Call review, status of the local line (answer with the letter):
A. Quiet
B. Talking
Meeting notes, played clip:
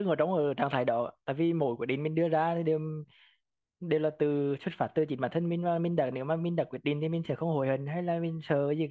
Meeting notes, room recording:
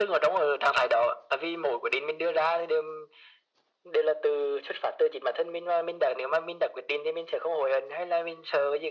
A